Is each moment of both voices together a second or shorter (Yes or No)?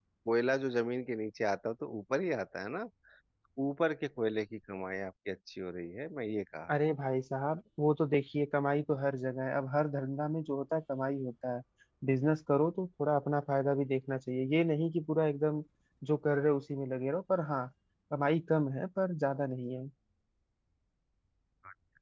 Yes